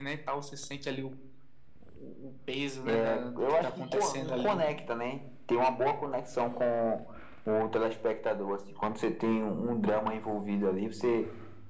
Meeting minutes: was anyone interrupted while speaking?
Yes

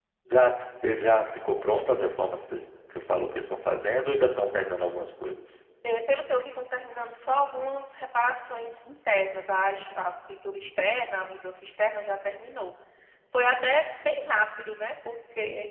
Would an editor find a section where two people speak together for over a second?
No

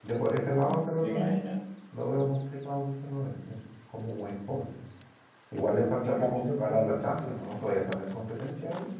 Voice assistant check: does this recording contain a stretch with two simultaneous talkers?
Yes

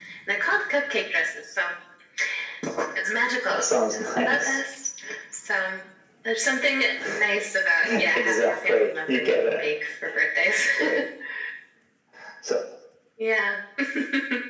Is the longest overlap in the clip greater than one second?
Yes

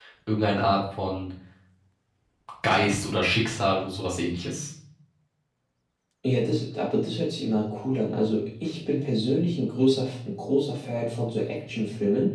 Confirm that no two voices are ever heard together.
Yes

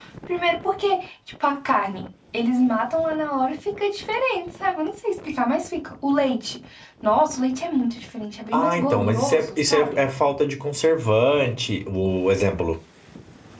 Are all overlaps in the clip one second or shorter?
No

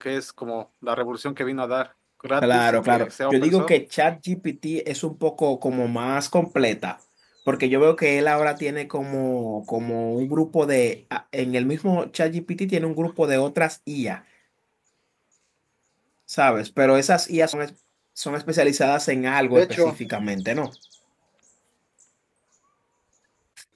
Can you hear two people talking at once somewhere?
Yes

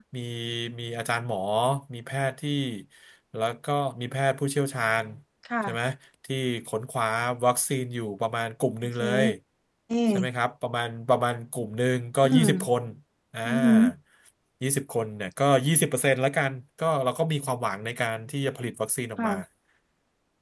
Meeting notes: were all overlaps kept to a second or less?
Yes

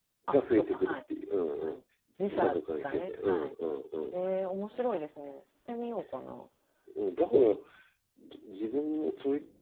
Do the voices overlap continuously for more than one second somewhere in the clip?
Yes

